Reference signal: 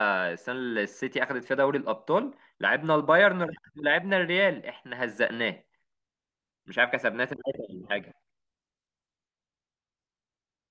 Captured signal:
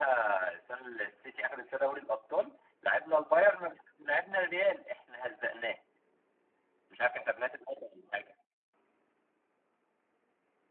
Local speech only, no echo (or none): none